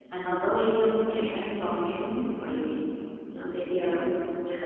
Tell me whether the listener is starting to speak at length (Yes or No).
No